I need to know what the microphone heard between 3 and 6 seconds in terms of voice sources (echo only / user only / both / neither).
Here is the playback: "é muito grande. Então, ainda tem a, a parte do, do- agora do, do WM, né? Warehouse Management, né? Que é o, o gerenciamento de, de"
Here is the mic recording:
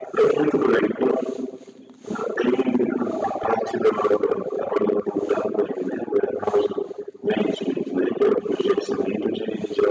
echo only